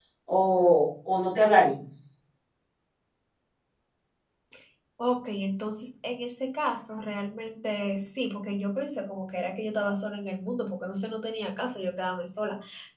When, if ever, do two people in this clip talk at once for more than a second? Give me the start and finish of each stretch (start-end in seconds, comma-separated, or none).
none